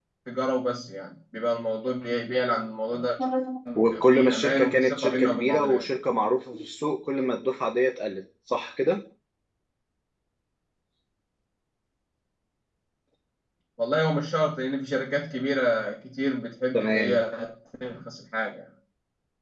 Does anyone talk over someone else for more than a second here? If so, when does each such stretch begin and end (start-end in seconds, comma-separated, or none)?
3.8-5.8